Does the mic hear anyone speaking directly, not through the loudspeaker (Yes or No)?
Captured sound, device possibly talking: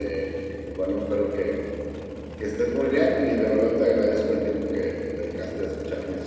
No